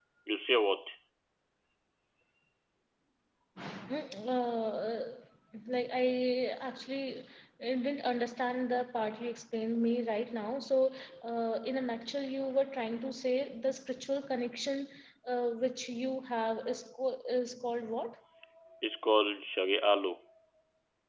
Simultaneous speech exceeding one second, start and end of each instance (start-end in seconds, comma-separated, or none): none